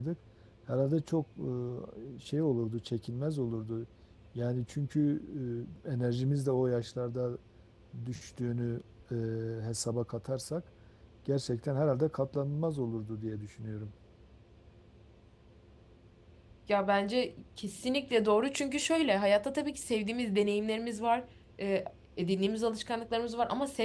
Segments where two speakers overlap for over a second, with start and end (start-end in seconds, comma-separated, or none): none